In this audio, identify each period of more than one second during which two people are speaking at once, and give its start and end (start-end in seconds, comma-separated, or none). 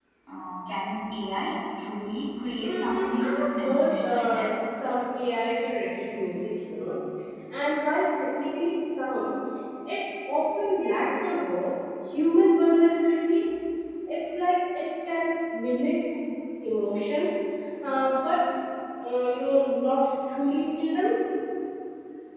2.6-4.5